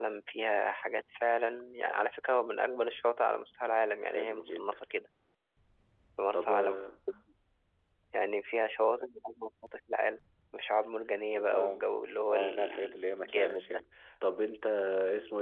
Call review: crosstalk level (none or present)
present